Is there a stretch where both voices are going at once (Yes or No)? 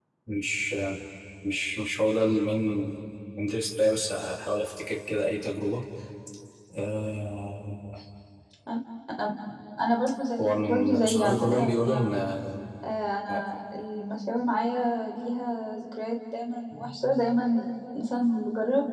Yes